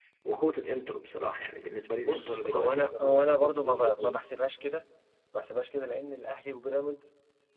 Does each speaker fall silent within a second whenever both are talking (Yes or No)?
No